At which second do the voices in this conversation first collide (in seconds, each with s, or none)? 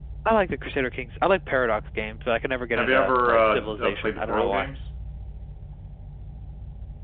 2.8 s